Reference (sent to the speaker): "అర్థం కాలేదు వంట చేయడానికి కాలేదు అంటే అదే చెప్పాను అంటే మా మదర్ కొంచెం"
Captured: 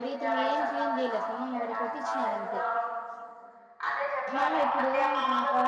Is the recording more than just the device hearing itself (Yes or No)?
Yes